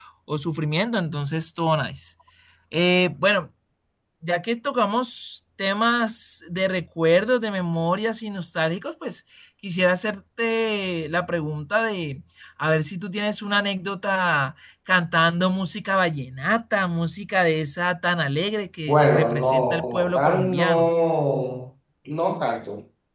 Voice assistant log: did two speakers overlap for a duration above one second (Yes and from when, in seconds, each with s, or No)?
Yes, from 18.9 s